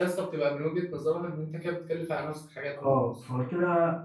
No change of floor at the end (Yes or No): No